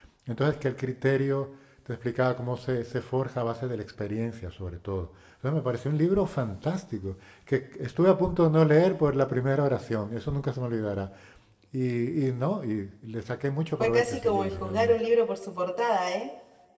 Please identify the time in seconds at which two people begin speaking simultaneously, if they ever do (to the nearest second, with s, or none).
14 s